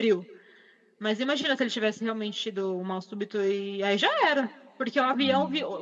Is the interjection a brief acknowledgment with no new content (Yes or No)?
Yes